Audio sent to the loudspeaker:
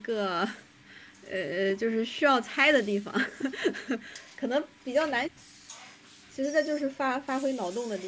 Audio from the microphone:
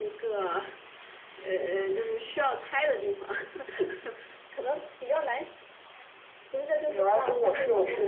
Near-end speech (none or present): present